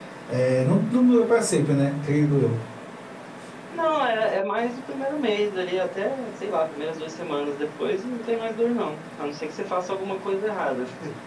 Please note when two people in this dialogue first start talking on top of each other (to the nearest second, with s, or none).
none